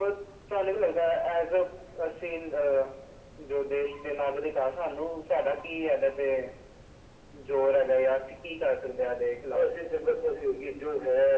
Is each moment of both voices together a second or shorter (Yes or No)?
Yes